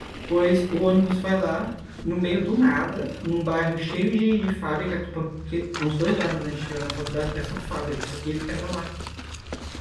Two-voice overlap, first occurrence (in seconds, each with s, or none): none